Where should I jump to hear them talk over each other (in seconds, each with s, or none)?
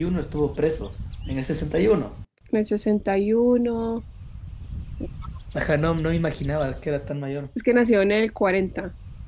none